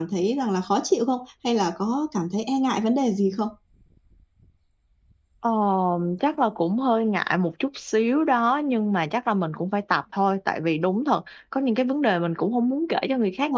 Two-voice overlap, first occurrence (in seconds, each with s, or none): none